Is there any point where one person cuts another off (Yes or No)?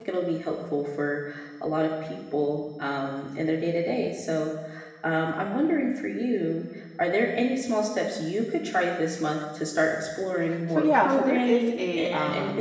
Yes